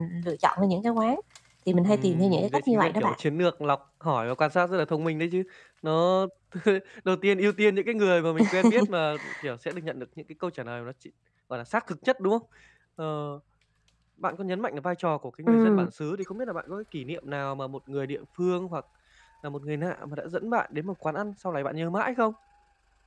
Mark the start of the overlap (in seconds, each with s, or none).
1.9 s